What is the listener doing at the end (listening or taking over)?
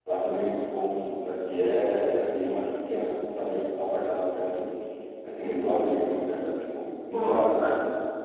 taking over